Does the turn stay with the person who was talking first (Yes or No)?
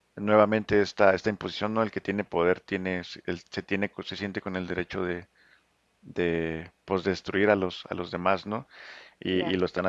Yes